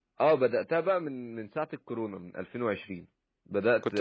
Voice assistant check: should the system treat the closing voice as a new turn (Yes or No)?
Yes